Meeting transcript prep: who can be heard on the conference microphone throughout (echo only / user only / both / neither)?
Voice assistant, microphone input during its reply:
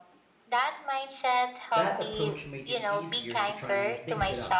both